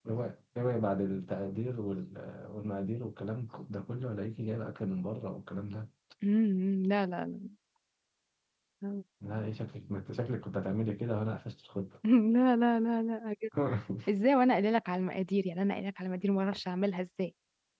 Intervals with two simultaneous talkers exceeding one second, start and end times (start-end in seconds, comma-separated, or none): none